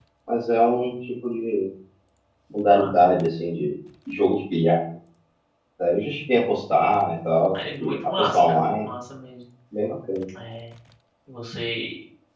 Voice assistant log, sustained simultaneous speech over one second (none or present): present